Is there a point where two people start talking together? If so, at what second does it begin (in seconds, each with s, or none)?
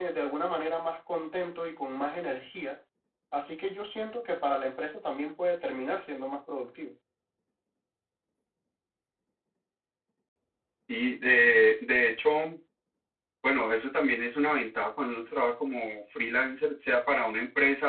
none